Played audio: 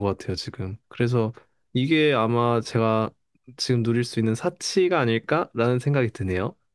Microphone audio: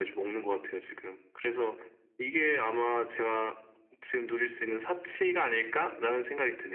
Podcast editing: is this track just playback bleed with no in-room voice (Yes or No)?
Yes